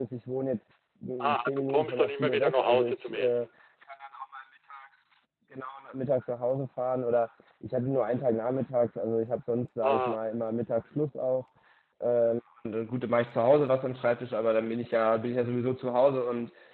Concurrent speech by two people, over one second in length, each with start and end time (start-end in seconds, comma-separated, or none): 1.2-3.5